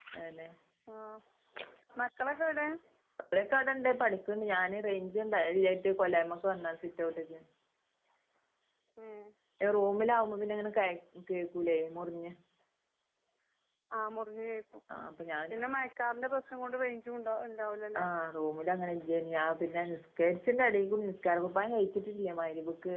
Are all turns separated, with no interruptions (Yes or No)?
Yes